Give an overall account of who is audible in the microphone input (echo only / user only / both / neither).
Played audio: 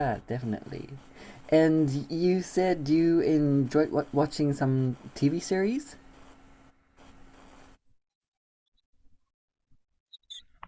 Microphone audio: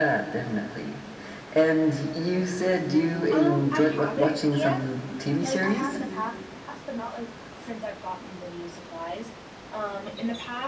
both